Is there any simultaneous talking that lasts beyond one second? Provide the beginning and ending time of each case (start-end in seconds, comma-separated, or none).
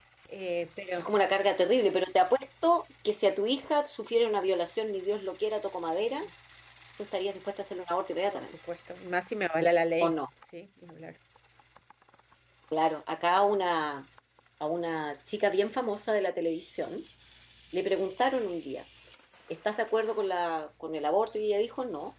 none